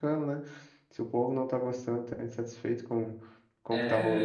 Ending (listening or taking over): listening